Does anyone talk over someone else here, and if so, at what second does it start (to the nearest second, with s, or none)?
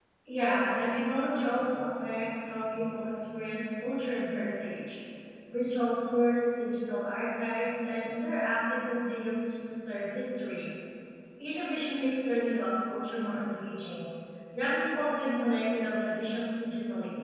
none